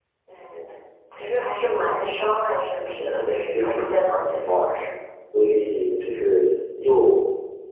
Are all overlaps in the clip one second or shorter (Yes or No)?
No